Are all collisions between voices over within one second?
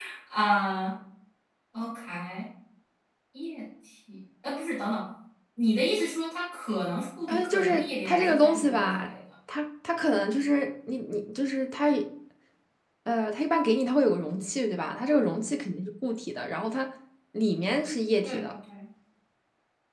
No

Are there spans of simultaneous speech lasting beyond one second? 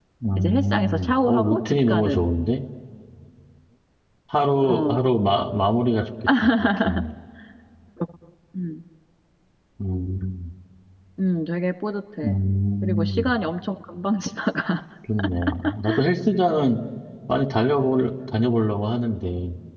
Yes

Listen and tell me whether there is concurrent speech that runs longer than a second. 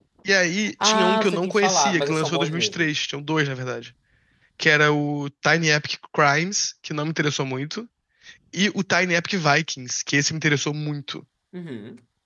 Yes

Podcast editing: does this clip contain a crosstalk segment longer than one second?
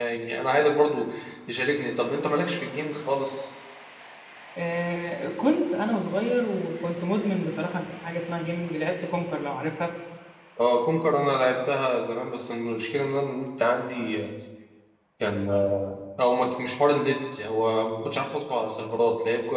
No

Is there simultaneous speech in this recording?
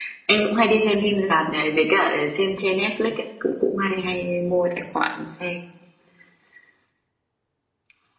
No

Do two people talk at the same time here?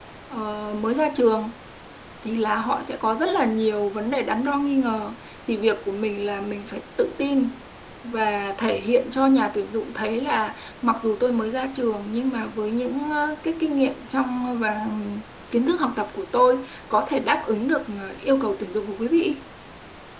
No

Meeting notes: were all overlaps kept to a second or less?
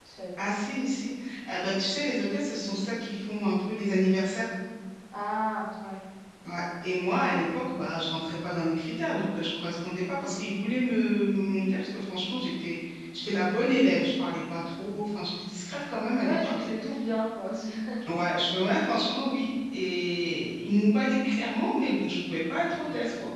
Yes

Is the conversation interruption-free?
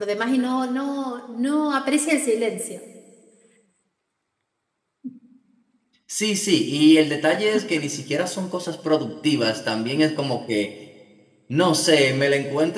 Yes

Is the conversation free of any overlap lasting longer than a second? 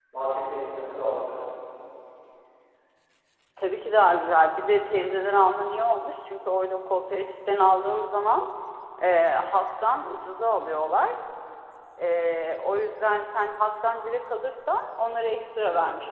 Yes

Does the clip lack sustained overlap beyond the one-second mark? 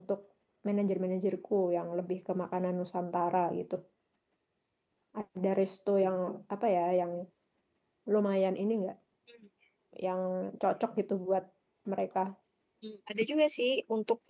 Yes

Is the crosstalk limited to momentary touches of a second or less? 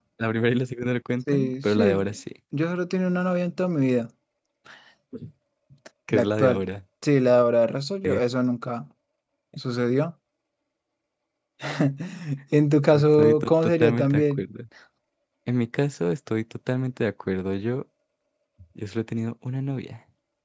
No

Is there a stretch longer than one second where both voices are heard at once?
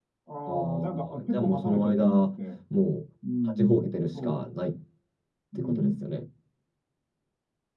Yes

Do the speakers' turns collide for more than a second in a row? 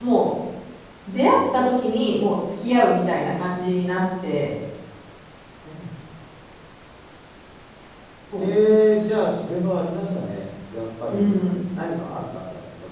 No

